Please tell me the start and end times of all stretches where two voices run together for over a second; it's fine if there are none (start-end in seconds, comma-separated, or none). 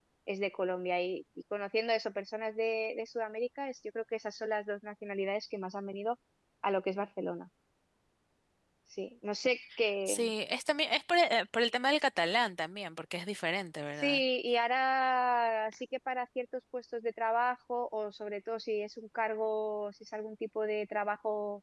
none